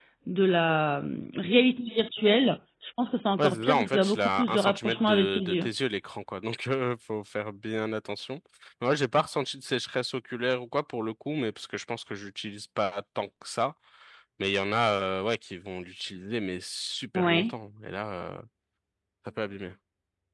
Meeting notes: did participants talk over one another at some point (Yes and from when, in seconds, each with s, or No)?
Yes, from 3.4 s